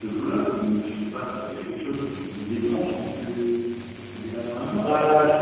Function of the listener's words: taking over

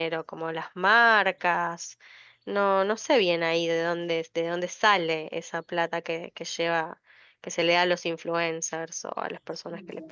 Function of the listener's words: taking over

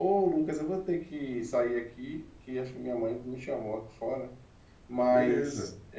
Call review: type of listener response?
listening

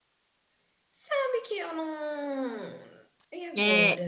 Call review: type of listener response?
taking over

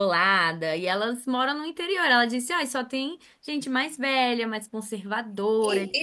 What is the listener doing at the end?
taking over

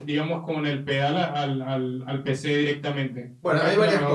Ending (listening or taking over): taking over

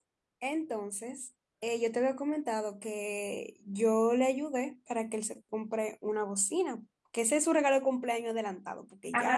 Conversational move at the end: taking over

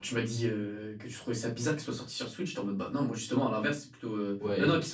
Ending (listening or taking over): taking over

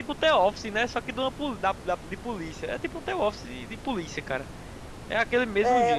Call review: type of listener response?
taking over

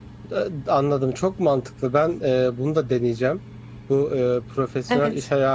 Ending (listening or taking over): listening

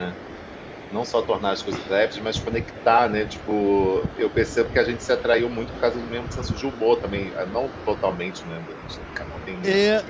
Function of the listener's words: taking over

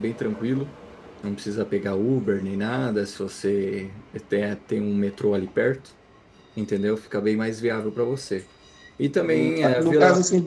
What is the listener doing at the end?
taking over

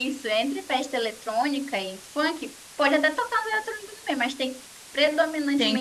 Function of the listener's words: taking over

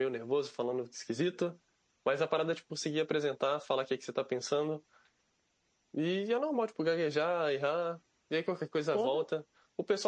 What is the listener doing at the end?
listening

